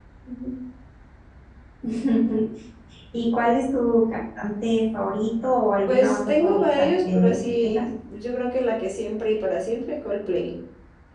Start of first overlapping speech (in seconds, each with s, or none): 5.9 s